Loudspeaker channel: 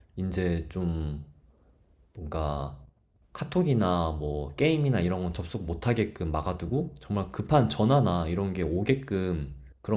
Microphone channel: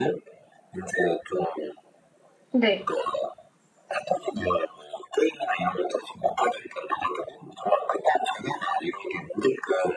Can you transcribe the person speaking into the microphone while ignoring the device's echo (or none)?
네.